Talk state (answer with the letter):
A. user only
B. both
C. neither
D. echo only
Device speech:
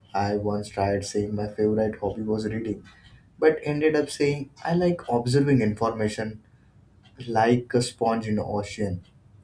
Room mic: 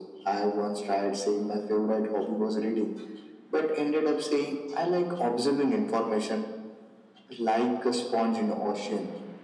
D